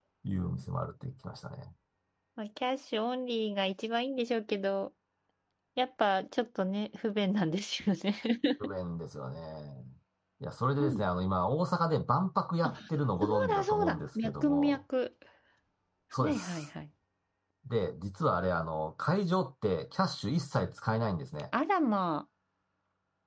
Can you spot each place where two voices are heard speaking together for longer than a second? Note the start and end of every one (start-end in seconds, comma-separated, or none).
13.2-14.8